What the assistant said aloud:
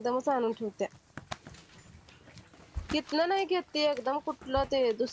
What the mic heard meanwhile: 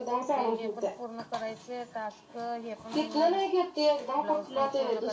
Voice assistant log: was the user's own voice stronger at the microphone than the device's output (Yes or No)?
No